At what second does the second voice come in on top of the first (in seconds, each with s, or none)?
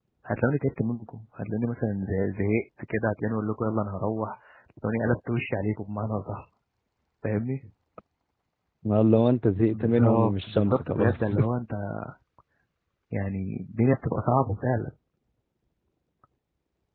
9.7 s